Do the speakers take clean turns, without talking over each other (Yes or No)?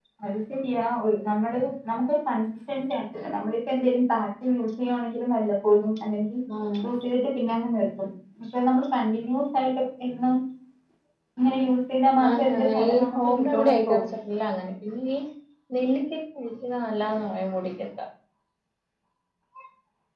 No